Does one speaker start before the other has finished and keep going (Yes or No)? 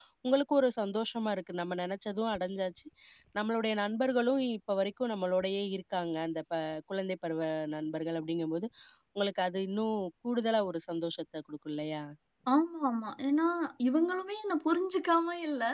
No